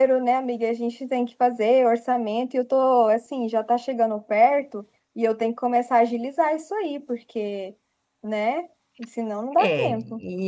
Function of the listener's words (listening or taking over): taking over